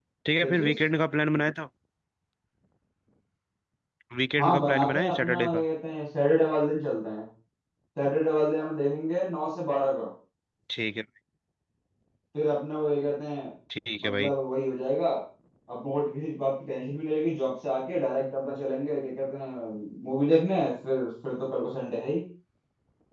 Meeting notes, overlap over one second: present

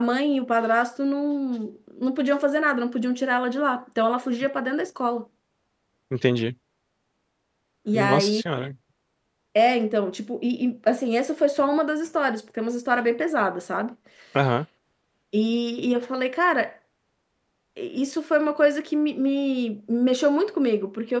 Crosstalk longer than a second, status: none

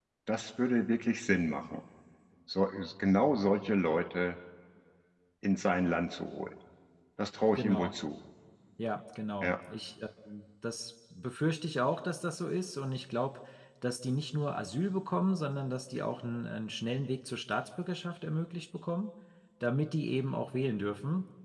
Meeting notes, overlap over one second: none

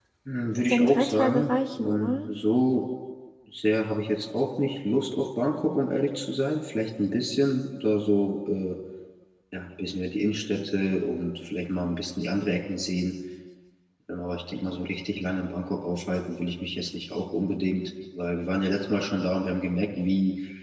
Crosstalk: present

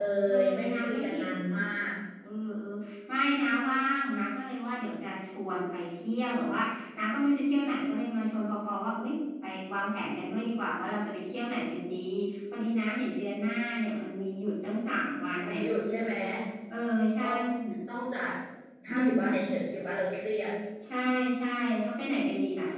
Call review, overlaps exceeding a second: present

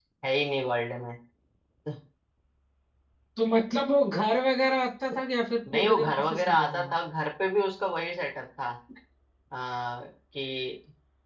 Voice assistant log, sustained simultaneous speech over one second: present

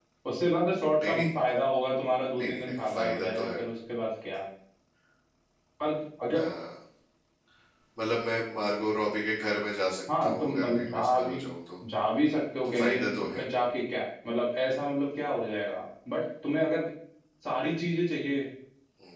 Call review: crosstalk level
present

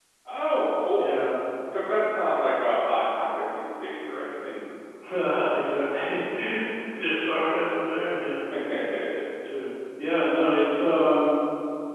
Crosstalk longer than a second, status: none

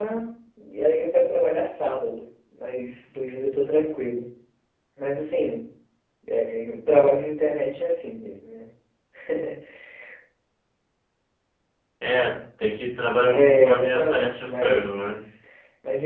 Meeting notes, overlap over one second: present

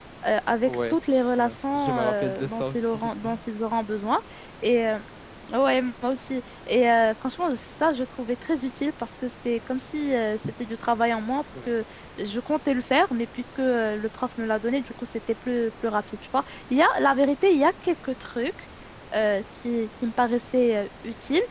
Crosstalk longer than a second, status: present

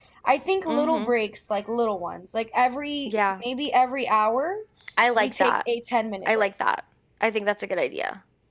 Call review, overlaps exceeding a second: none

